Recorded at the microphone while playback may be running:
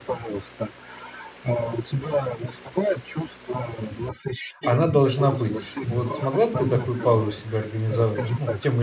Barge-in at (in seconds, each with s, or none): 4.6 s